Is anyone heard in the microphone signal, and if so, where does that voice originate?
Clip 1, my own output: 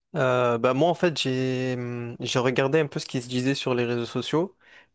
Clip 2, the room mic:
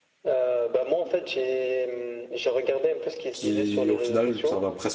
both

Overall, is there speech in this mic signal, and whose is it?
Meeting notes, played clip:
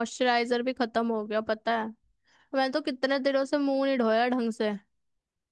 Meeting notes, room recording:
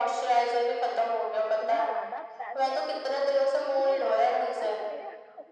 both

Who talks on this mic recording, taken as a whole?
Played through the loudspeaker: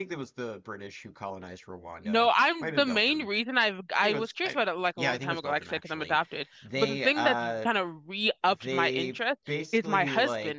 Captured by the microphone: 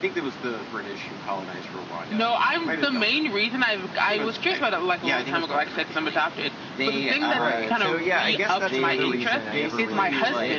both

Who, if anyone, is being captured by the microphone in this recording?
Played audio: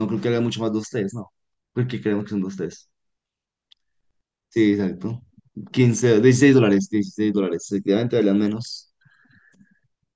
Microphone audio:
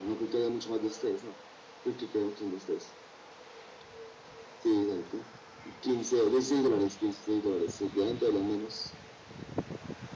echo only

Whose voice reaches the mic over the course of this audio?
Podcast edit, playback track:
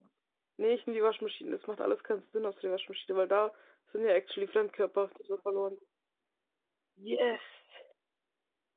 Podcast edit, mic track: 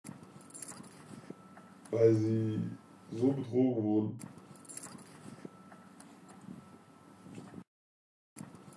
user only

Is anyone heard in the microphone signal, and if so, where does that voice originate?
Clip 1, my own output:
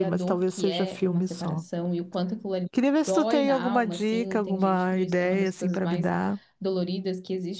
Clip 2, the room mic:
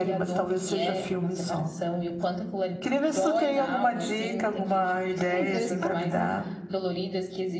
both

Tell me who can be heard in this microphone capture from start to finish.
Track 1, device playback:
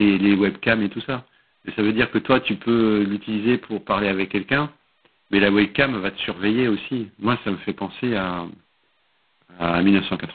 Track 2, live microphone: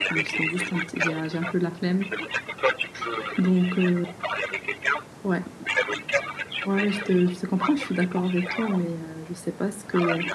both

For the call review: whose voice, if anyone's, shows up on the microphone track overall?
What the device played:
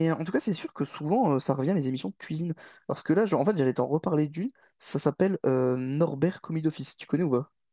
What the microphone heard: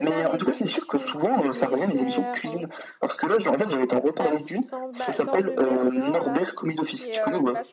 both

